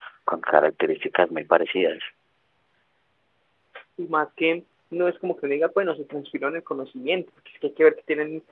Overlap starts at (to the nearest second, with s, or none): none